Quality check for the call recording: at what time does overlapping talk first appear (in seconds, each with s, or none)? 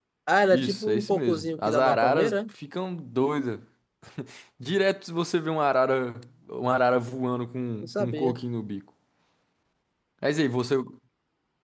0.5 s